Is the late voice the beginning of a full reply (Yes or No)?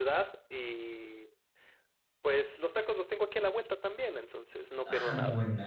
Yes